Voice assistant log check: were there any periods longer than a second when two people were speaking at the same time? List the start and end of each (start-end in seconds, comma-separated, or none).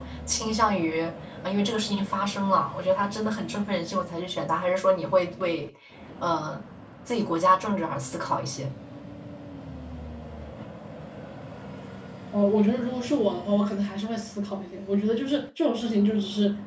none